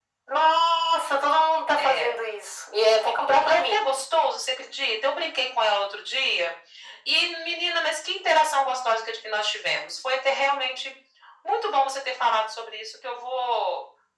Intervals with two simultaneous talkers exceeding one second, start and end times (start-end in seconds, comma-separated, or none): none